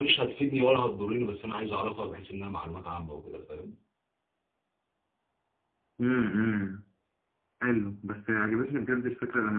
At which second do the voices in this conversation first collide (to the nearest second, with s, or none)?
none